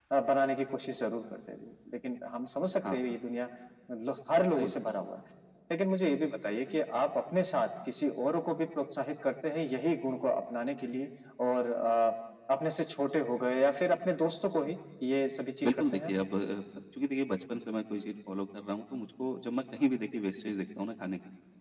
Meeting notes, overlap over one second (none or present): none